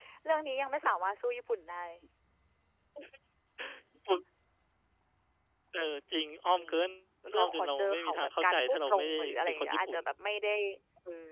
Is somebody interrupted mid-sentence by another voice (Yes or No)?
Yes